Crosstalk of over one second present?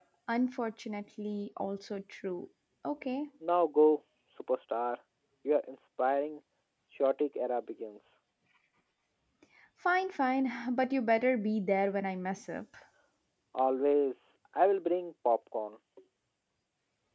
No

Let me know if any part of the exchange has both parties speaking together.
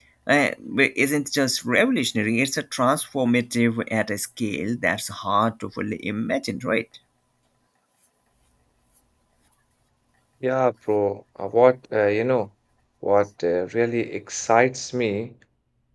No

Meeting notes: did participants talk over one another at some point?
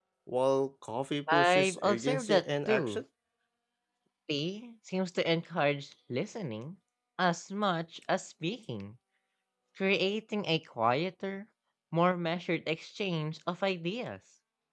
Yes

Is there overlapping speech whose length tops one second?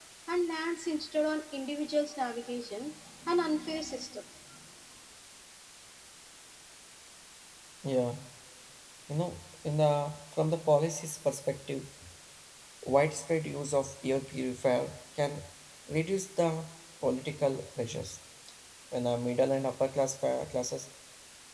No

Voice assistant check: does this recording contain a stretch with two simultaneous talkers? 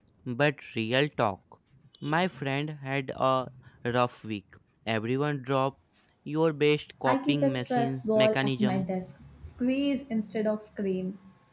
Yes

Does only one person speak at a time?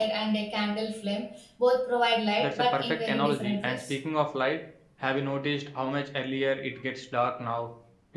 No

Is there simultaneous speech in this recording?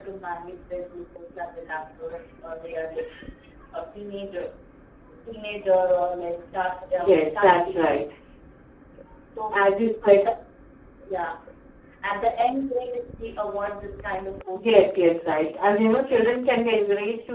Yes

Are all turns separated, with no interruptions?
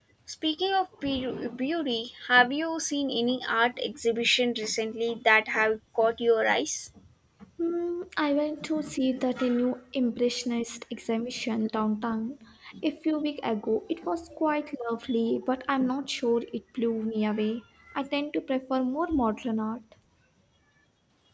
Yes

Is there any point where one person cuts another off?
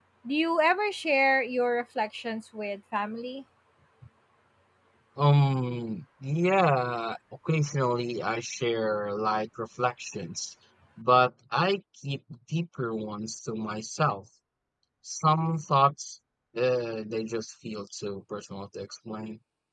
No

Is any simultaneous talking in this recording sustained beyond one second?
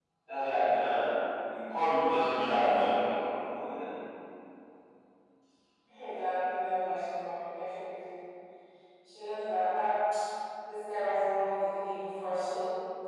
No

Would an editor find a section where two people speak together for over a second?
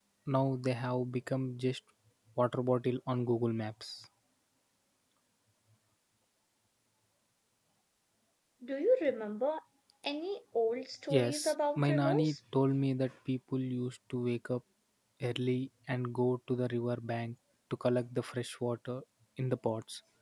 Yes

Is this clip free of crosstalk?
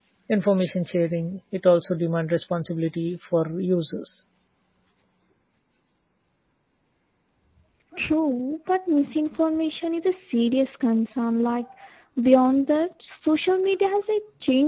Yes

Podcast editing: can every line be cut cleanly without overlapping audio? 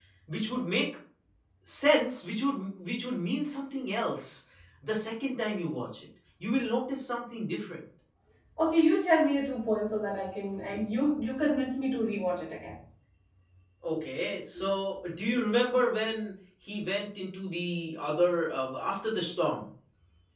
Yes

